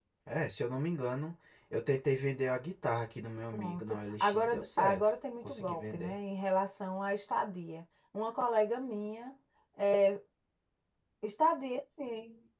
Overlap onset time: 3.5 s

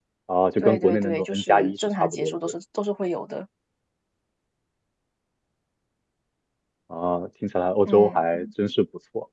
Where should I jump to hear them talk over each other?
0.6 s

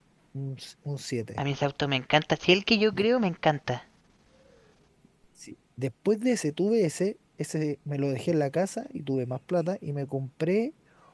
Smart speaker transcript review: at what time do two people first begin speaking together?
none

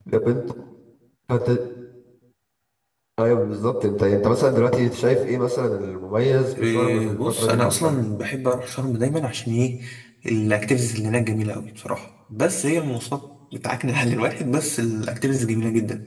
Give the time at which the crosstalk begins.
6.5 s

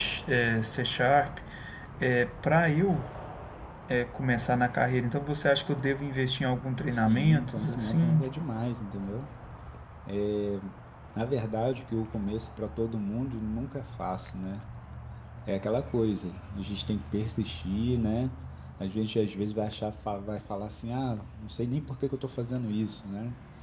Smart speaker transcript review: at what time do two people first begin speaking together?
6.9 s

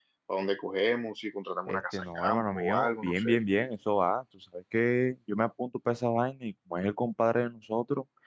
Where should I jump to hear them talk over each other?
1.7 s

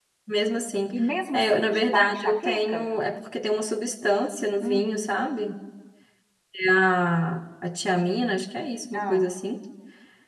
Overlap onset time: 1.3 s

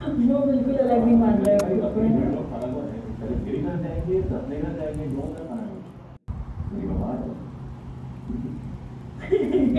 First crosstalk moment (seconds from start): 0.8 s

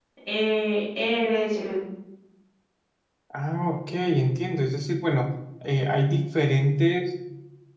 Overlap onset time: none

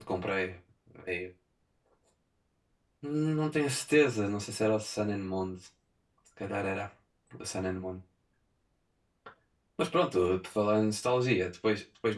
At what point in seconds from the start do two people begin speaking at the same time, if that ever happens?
none

